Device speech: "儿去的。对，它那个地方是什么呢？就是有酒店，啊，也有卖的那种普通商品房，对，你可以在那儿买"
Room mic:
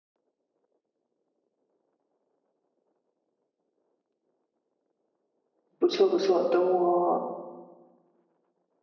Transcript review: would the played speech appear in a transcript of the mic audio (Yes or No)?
No